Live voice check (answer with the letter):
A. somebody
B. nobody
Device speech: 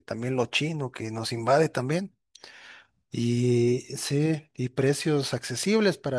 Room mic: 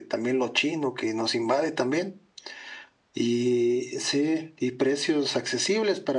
B